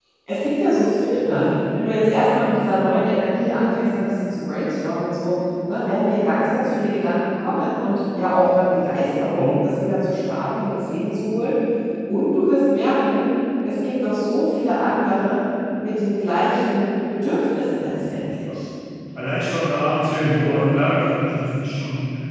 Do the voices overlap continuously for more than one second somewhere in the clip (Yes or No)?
No